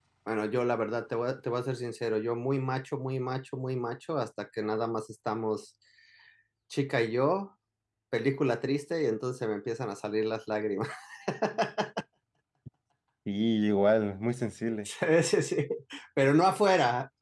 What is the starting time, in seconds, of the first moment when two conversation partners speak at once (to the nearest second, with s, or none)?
none